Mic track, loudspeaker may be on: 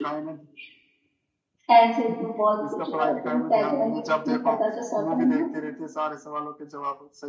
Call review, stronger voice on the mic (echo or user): user